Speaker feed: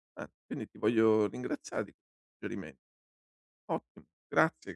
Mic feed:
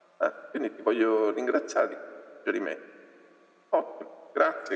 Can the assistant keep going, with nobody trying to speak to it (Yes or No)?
Yes